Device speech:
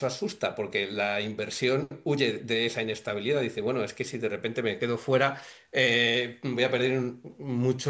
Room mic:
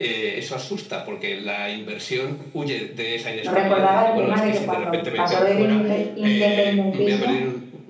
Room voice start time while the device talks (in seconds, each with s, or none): 3.4 s